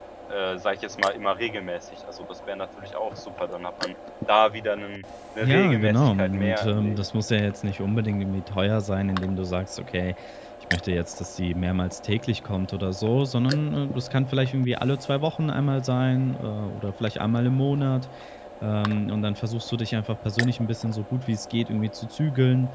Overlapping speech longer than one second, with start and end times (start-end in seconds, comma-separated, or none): 5.4-7.0